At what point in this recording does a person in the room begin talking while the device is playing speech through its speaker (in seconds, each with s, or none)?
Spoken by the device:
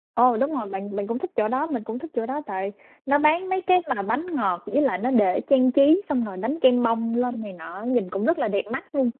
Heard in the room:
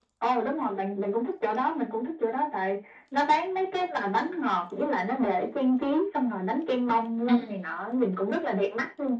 7.3 s